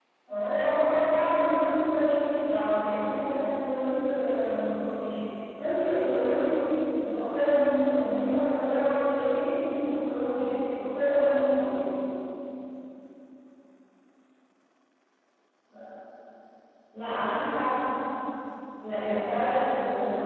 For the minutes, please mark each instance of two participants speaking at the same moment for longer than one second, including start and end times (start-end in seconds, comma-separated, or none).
none